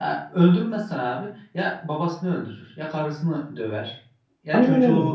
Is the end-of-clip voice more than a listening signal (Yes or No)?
No